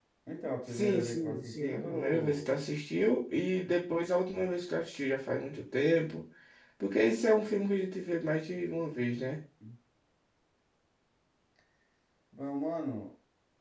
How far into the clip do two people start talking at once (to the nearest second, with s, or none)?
1 s